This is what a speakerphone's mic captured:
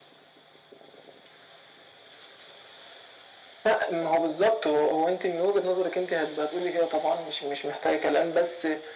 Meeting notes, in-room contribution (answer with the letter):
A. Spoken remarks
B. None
B